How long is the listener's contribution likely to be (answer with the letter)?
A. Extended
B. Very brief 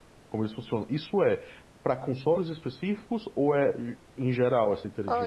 A